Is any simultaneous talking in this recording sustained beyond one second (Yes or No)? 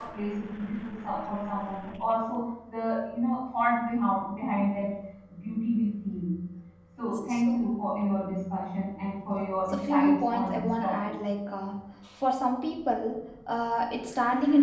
Yes